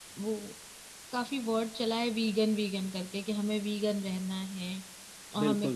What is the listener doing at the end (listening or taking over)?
listening